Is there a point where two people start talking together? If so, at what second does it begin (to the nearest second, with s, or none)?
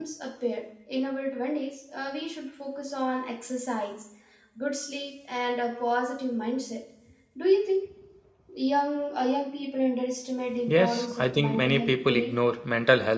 11 s